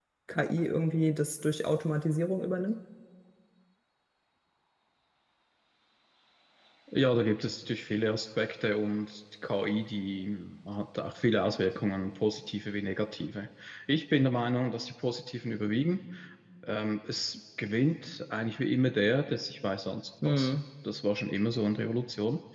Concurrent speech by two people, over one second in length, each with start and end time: none

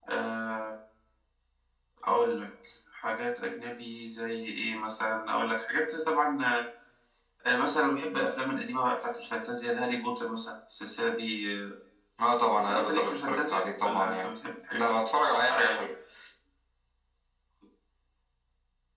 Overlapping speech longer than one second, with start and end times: 12.6-14.3

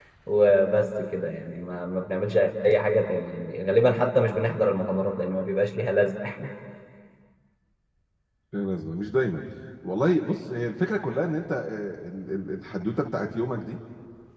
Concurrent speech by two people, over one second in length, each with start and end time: none

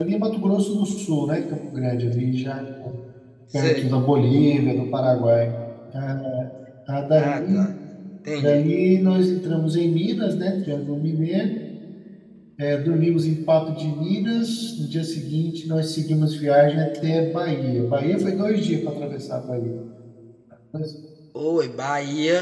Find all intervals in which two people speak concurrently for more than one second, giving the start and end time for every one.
none

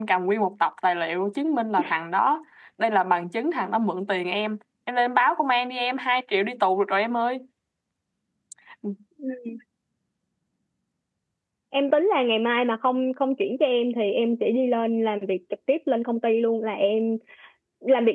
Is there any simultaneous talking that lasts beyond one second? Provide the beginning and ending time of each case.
none

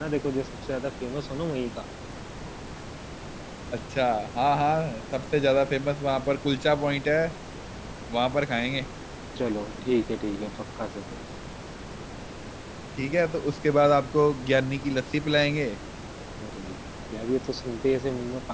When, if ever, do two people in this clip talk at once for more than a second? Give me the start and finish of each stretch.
none

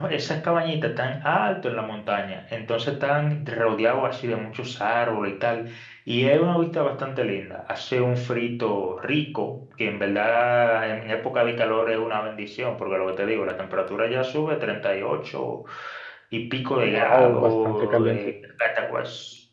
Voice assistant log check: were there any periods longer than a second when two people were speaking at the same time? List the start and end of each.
16.8-18.3

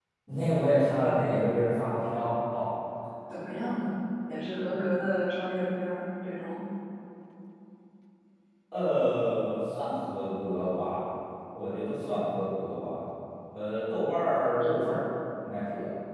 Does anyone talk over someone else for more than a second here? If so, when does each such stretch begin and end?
none

